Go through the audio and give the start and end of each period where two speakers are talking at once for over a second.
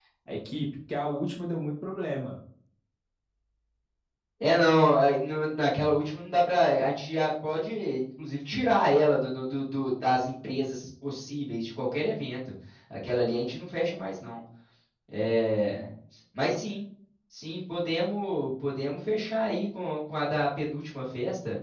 none

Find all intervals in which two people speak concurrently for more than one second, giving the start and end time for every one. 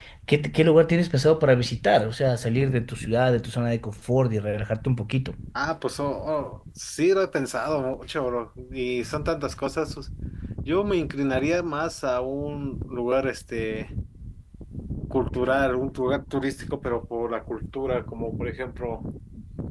none

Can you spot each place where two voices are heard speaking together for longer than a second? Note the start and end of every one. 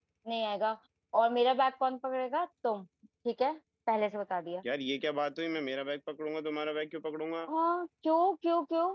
none

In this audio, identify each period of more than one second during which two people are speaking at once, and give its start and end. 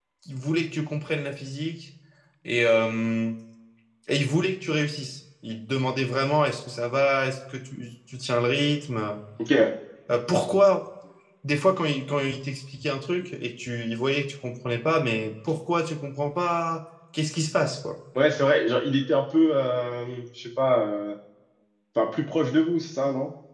none

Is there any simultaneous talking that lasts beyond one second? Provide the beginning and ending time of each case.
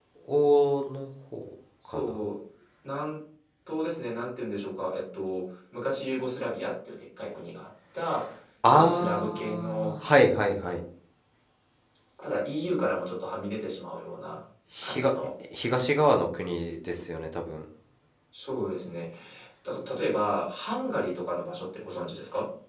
8.7-9.9

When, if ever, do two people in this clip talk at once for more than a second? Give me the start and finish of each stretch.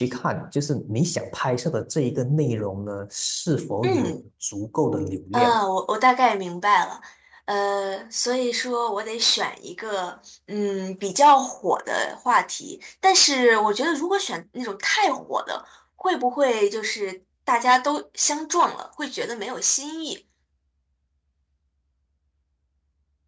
none

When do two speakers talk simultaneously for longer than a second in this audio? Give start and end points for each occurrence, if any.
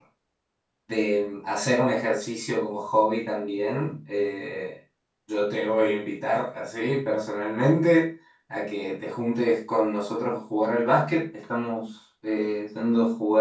none

